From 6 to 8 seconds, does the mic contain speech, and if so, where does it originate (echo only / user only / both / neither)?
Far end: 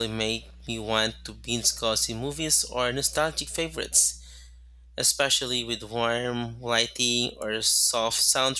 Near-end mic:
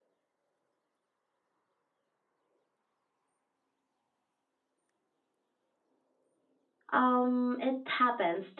user only